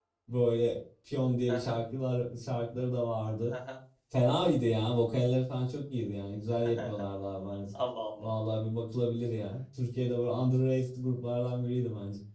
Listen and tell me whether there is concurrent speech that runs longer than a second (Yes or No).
No